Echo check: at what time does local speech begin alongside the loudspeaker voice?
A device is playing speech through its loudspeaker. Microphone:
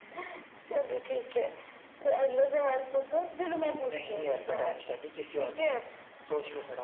none

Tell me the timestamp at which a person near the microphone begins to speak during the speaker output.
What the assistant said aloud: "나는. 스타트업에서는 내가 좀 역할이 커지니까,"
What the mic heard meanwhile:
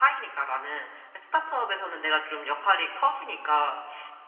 none

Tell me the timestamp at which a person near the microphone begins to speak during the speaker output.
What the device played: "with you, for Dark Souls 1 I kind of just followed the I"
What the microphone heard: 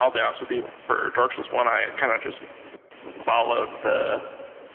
none

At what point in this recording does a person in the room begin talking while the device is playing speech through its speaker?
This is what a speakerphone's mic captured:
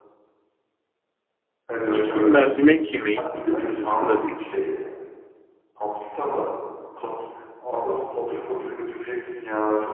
1.9 s

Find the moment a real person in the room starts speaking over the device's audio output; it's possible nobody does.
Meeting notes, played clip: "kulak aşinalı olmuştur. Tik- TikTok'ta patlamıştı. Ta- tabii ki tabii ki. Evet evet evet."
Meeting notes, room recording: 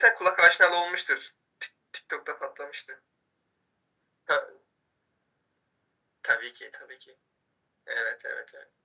none

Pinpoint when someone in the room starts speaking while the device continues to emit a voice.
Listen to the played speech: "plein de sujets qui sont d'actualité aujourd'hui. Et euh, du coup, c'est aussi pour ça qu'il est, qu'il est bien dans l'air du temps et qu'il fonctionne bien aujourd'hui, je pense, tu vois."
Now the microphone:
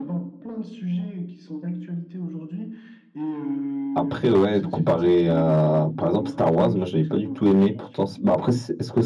3.9 s

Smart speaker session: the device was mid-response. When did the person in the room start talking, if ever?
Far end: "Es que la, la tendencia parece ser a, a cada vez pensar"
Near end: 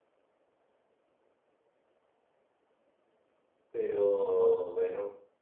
3.7 s

